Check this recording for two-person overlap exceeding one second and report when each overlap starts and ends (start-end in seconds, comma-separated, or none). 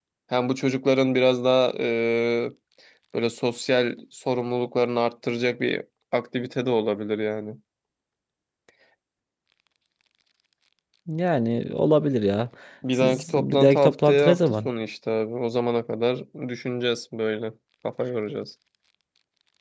13.0-14.7